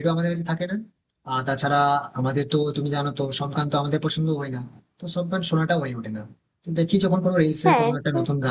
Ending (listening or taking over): listening